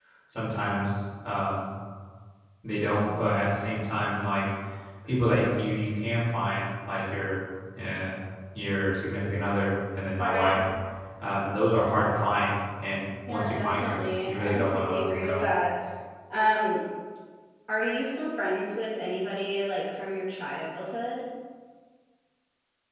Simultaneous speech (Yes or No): Yes